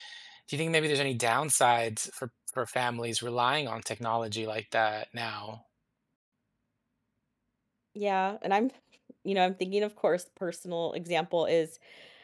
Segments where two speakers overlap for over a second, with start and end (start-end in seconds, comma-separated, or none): none